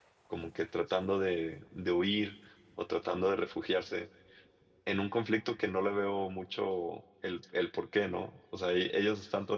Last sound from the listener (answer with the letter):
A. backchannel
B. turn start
A